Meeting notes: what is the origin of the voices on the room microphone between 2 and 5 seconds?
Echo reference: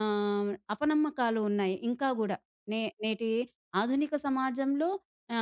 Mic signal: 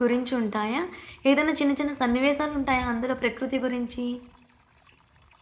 user only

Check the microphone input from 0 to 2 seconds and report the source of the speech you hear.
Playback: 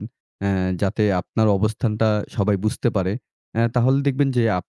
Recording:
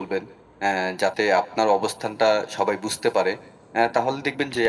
echo only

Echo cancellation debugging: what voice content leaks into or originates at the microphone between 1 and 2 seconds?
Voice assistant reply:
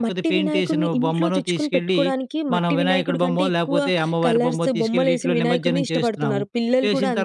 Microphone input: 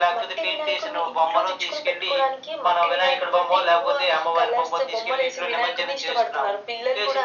echo only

